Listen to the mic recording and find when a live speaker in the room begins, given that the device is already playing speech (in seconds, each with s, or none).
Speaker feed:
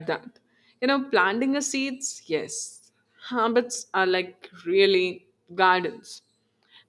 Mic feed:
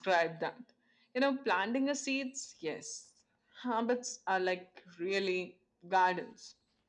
none